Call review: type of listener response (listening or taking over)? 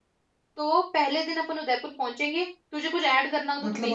taking over